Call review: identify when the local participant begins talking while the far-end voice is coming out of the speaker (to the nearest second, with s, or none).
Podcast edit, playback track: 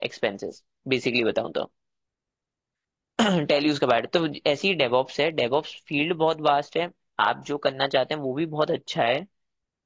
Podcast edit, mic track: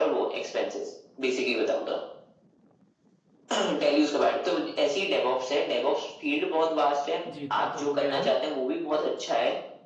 7 s